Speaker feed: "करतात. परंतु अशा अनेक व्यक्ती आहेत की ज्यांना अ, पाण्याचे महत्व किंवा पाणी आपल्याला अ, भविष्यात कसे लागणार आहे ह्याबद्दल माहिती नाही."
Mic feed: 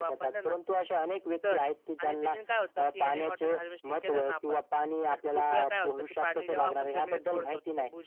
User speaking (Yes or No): Yes